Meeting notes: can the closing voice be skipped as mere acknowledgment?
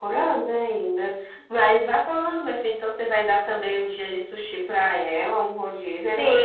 No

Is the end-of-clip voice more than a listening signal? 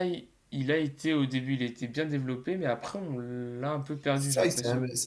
Yes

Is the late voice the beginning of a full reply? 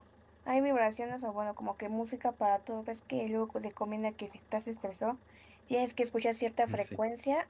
No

